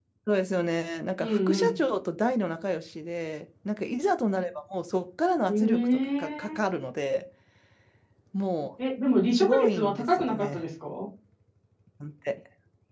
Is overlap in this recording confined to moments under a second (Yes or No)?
No